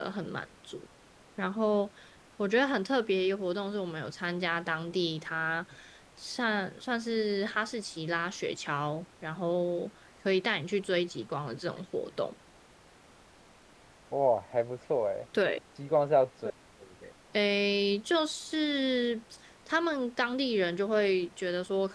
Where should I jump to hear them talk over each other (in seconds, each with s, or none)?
none